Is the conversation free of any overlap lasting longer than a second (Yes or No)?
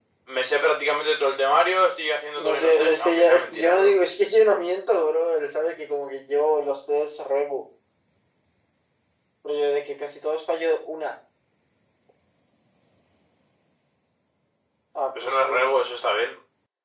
No